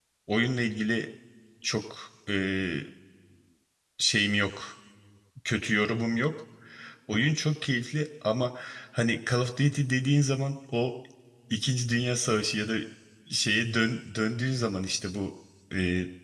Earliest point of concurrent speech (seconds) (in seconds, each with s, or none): none